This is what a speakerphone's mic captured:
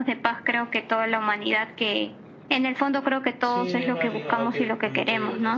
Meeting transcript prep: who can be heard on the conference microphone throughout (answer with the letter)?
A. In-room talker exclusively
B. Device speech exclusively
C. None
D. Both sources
D